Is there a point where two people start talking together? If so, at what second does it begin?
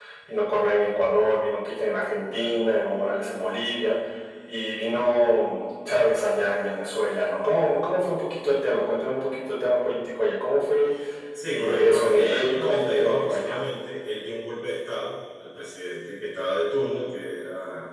11.5 s

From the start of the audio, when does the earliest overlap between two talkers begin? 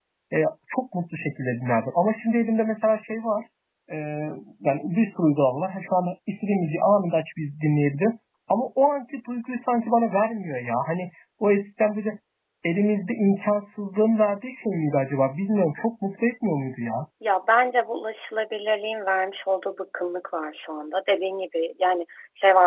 none

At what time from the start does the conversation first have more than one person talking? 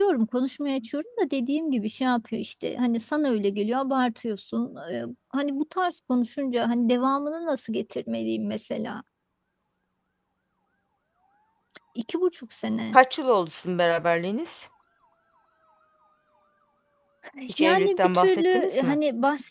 17.6 s

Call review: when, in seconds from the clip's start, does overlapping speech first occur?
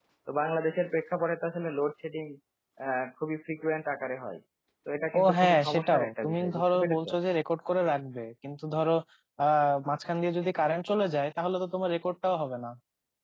5.2 s

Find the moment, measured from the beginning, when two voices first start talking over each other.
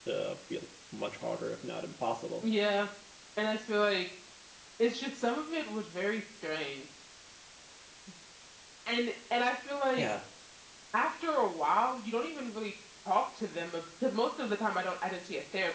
none

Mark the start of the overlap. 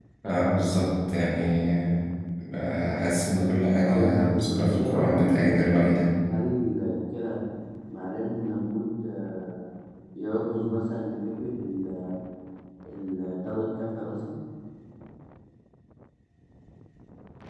3.8 s

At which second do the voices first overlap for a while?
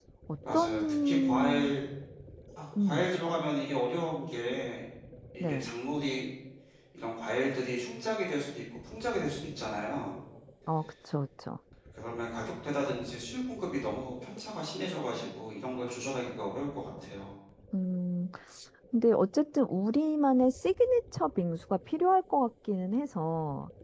0.5 s

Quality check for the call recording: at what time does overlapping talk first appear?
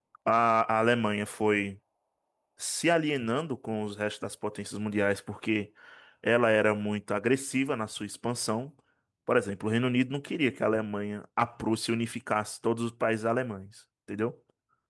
none

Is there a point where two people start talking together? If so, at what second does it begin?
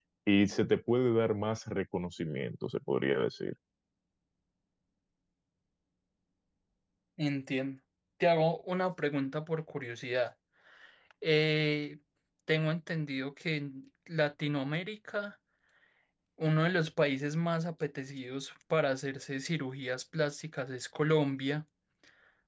none

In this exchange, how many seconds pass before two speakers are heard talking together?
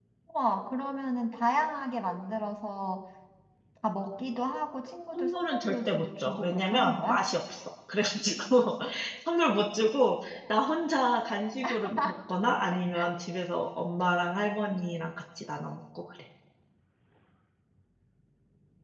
5.1 s

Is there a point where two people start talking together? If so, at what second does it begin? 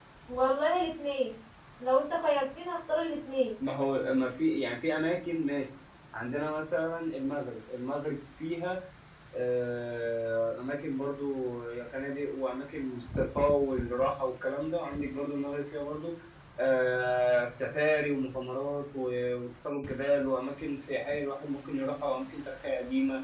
none

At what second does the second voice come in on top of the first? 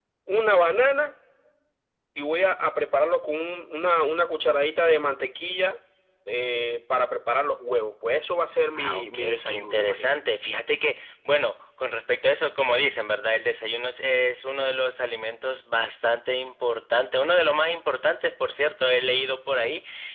8.8 s

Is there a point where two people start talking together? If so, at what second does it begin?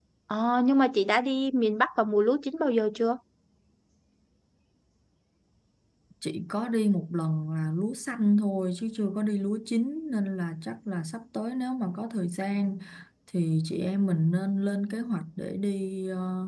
none

